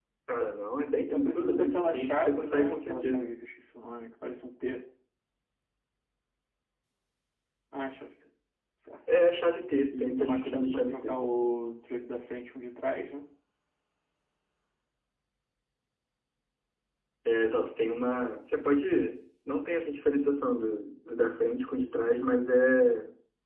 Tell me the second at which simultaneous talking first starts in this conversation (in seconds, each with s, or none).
1.0 s